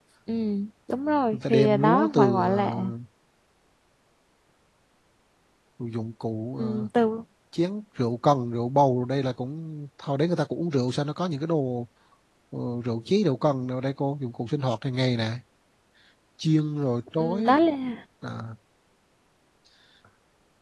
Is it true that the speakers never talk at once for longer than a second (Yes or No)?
No